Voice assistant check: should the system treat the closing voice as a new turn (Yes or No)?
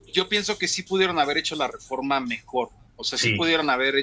No